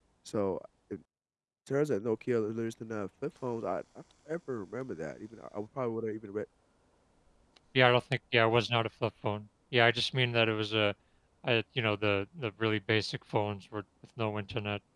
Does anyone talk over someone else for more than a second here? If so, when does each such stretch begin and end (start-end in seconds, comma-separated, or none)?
none